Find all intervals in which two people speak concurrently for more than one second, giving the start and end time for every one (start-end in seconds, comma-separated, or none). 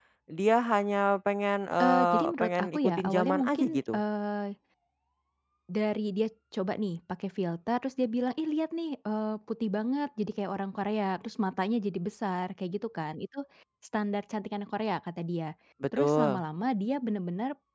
1.8-4.0